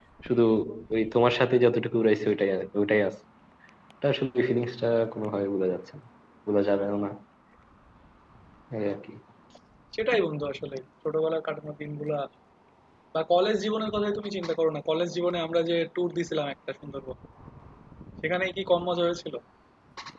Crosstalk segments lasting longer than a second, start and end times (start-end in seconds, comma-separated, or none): none